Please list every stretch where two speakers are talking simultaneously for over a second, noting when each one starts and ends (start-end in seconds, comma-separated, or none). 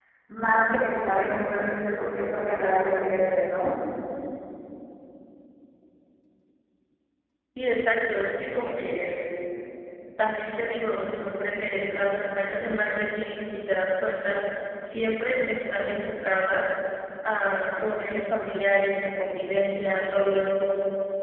none